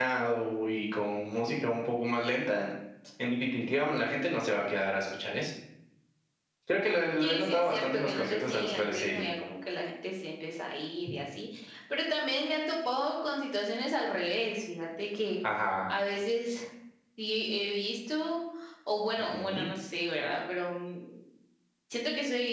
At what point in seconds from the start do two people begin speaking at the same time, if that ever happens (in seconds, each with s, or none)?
7.2 s